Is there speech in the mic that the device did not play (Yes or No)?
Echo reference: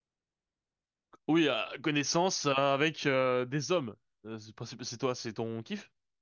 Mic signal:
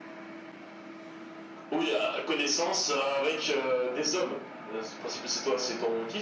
No